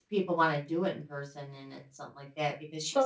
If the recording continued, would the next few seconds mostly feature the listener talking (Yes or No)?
Yes